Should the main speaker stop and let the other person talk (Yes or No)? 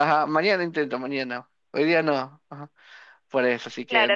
Yes